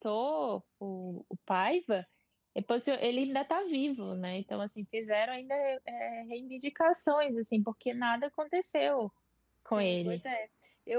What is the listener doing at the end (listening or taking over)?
taking over